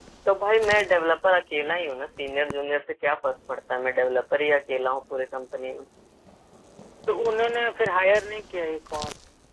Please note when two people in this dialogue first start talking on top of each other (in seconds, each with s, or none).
none